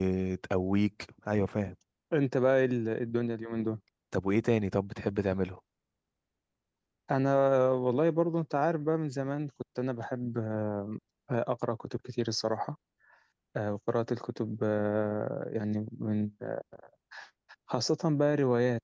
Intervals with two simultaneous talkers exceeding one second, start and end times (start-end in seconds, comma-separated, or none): none